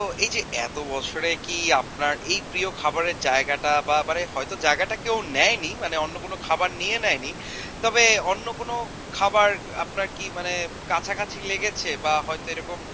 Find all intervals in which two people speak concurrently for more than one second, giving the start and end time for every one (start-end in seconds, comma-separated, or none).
none